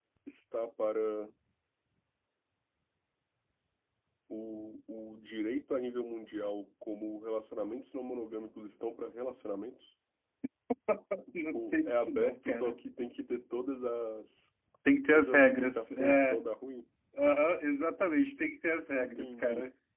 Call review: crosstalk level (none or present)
present